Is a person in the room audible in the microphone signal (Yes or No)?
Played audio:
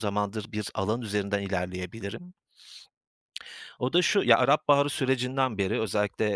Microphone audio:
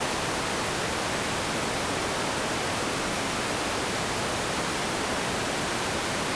No